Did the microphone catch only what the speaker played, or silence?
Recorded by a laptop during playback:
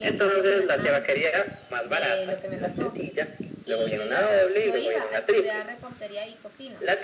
No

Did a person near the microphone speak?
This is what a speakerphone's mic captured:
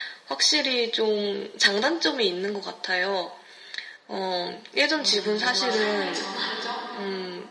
Yes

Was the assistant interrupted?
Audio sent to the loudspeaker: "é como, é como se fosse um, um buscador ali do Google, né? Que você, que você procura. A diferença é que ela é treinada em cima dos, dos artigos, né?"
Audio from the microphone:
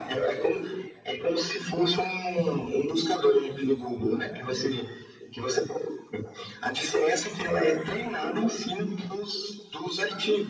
No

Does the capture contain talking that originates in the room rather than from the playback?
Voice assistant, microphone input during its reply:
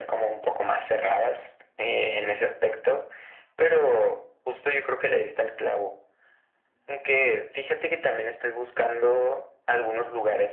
No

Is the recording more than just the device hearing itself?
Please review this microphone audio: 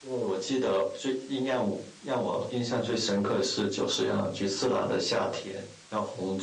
No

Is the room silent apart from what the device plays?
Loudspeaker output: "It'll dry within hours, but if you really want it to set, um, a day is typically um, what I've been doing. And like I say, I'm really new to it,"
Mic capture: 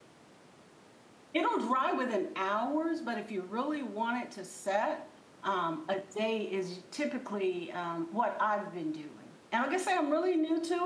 Yes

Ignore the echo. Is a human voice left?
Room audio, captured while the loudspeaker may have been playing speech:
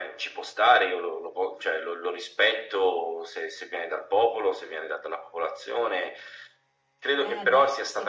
Yes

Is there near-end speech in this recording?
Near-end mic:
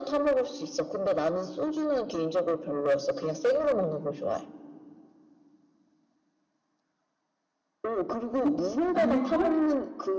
Yes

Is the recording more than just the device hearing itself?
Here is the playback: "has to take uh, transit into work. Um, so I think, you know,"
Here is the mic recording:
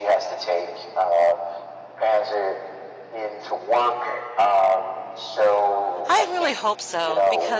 Yes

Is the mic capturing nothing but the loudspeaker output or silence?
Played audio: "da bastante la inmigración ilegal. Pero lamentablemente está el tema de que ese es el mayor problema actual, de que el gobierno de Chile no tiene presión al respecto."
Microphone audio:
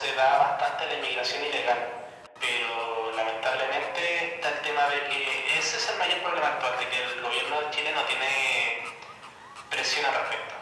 Yes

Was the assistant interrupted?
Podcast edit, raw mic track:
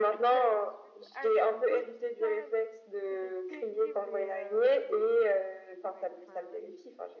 Yes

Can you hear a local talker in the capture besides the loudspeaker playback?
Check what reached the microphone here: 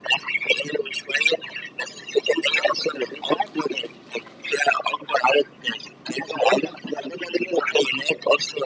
No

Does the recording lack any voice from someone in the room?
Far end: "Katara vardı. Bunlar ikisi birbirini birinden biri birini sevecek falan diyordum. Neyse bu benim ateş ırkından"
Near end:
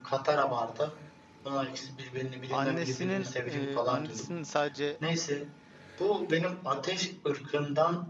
No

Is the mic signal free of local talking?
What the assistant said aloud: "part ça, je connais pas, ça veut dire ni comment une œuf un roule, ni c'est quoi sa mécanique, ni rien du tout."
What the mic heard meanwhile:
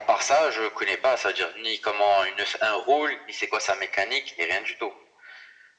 Yes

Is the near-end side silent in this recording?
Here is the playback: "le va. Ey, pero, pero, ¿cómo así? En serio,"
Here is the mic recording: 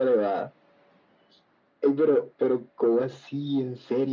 Yes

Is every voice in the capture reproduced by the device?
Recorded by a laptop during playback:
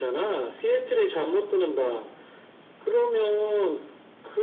Yes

